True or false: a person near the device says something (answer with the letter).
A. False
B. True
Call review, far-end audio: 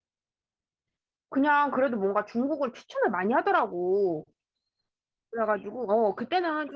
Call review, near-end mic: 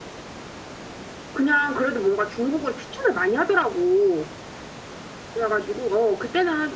A